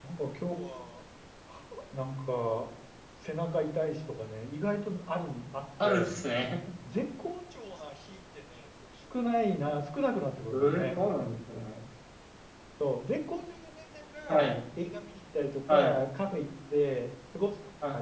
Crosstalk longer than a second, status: none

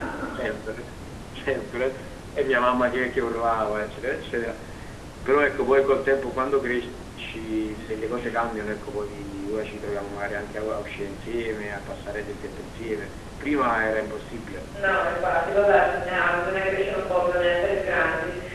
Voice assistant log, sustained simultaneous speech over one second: none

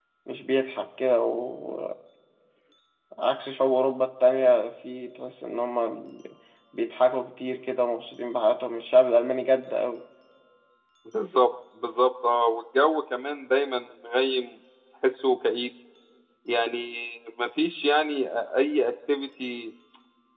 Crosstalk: none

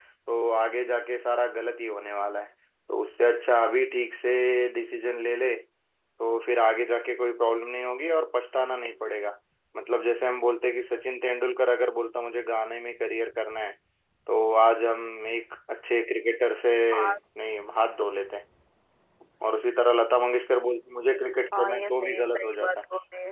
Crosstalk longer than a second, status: present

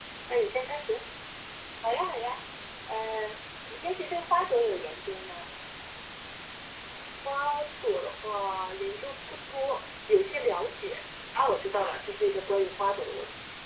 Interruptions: none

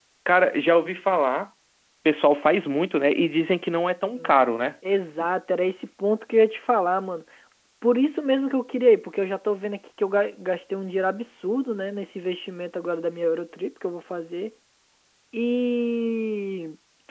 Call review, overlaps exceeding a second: none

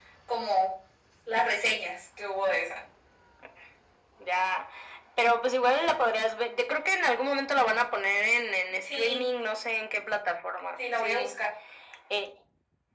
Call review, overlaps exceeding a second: none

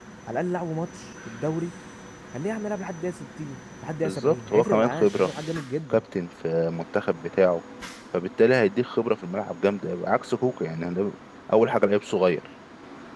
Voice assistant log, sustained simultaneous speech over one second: present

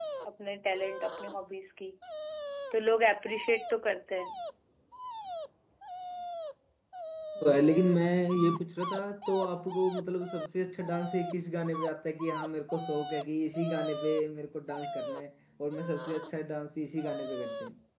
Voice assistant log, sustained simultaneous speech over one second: none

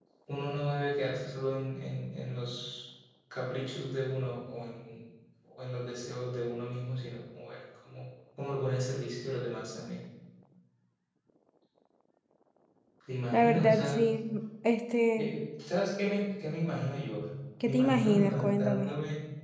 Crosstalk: present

